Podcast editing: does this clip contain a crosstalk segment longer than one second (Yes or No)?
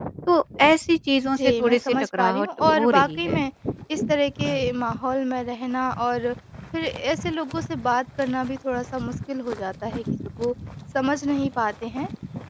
Yes